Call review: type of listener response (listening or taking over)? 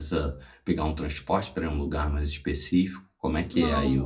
taking over